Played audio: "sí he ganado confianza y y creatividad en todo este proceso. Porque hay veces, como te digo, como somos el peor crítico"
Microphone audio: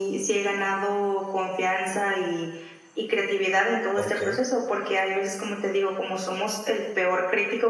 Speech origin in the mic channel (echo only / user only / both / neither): both